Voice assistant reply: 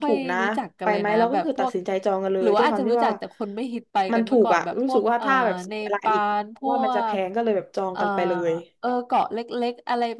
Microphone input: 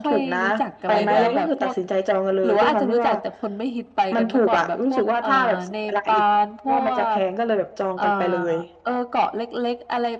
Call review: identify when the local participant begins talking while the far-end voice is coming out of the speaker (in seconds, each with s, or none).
0.9 s